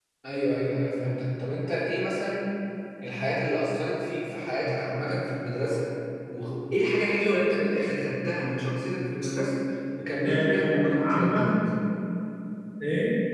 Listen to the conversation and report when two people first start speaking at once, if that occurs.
10.2 s

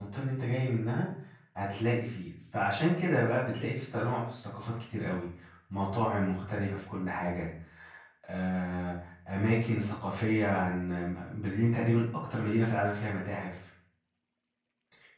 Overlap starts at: none

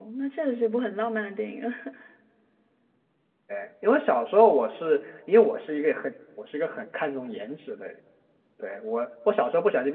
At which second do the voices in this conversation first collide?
none

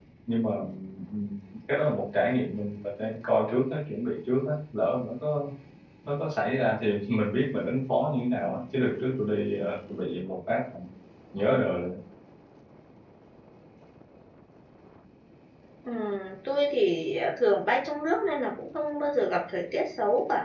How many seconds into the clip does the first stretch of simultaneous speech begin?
none

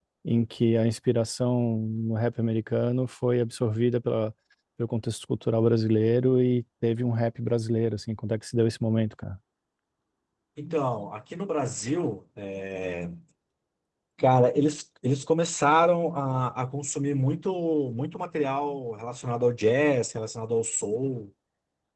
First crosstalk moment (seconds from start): none

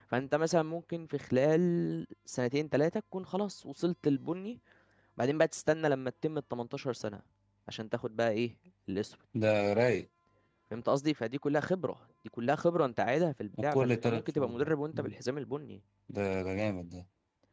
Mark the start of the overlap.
13.5 s

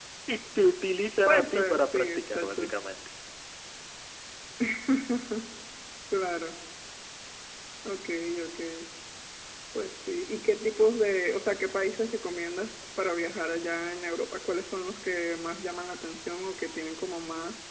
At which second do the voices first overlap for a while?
1.3 s

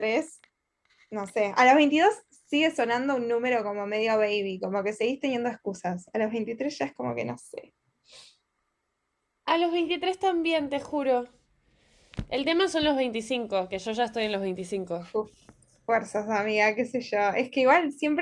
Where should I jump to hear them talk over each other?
none

